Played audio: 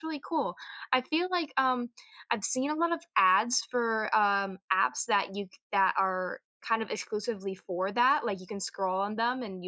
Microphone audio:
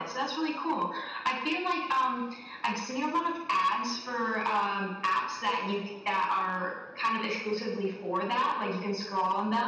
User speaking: No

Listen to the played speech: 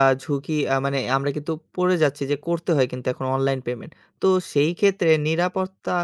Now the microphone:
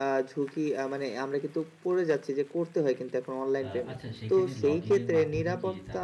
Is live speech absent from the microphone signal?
No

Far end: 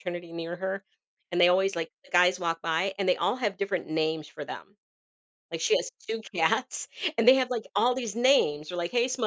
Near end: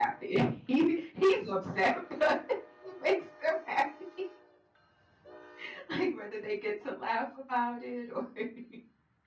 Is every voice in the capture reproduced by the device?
No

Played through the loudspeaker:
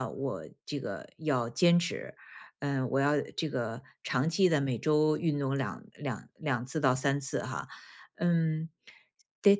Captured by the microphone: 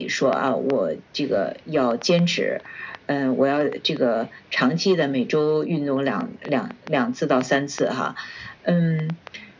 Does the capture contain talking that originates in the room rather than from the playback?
No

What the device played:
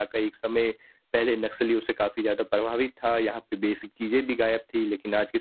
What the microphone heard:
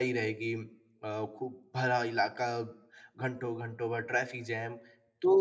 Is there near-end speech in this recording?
Yes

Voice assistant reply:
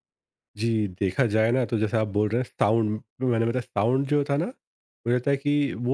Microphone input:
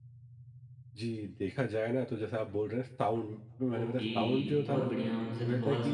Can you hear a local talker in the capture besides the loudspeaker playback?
Yes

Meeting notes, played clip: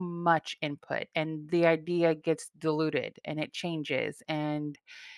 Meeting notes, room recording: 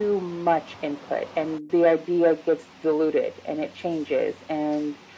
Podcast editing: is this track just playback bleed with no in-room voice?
Yes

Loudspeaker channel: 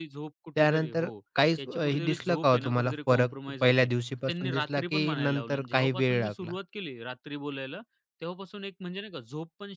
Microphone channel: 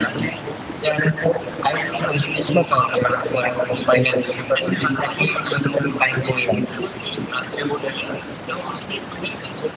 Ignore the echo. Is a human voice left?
No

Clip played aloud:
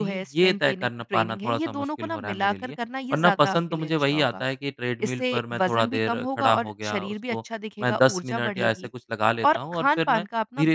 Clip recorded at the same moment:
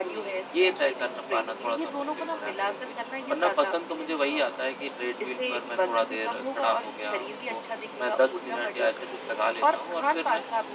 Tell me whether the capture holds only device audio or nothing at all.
Yes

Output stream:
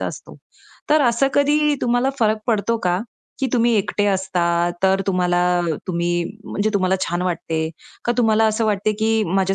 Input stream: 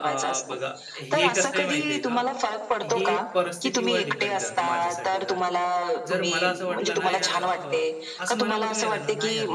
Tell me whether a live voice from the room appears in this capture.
Yes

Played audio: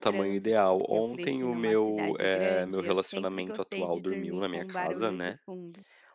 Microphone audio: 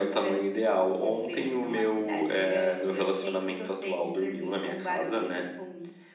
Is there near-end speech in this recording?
No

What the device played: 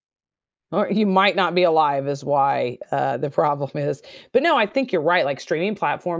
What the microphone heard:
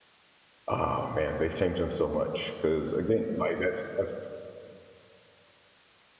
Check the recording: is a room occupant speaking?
Yes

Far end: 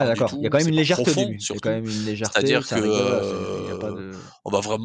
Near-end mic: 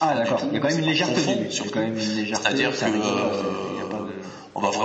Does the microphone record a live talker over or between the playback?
No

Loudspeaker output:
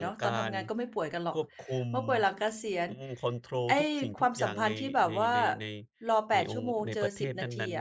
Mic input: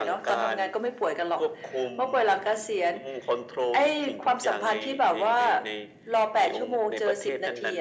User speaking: No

